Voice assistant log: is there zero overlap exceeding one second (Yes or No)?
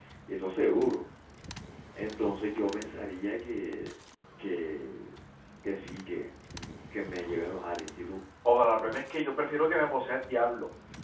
Yes